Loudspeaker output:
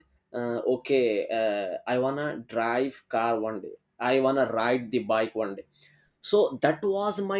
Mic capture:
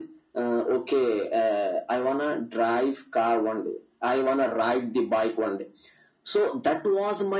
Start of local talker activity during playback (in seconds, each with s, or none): none